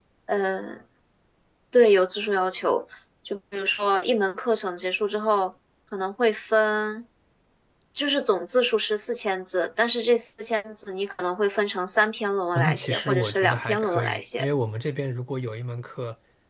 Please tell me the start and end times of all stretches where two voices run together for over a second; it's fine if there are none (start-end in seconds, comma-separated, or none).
12.6-14.5